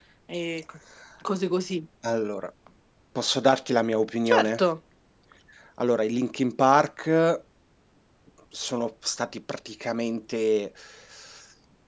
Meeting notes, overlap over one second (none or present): none